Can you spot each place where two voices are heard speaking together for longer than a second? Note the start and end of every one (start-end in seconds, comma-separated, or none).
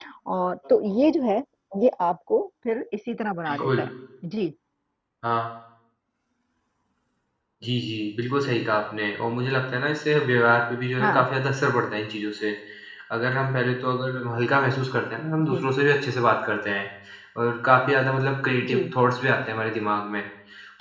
none